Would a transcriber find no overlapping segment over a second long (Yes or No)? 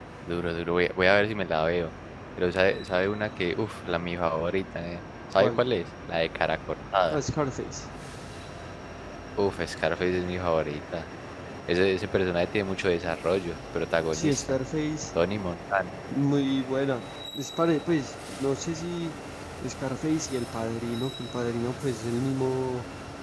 Yes